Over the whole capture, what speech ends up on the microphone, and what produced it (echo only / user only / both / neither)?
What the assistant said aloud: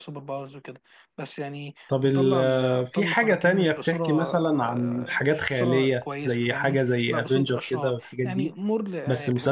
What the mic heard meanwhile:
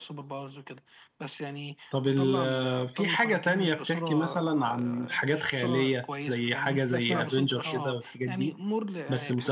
both